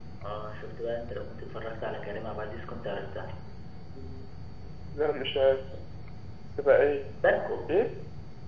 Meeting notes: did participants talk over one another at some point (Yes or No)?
No